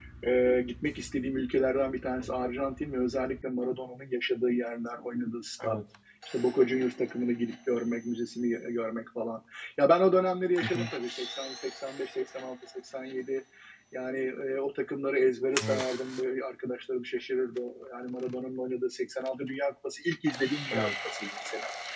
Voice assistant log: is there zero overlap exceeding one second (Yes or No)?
Yes